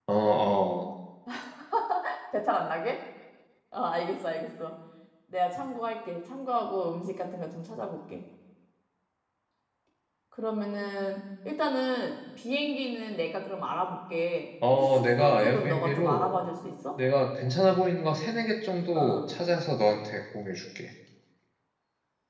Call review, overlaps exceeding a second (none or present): present